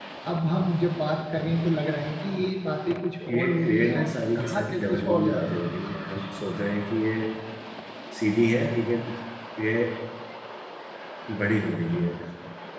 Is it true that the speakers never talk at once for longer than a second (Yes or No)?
No